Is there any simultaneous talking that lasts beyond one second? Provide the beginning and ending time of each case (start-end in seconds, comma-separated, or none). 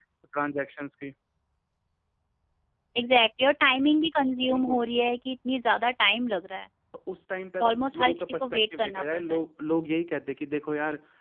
7.7-9.4